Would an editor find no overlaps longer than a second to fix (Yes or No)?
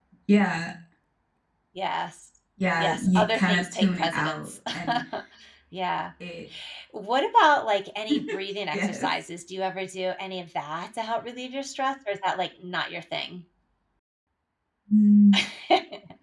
No